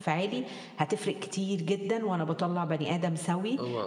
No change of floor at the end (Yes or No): Yes